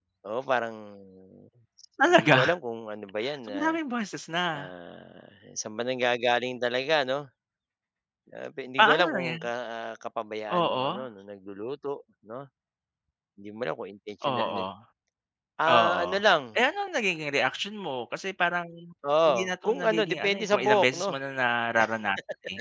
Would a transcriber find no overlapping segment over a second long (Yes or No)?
No